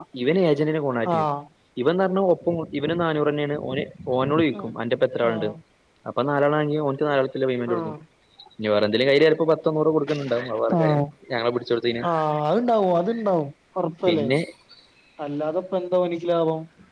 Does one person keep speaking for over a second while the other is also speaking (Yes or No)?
No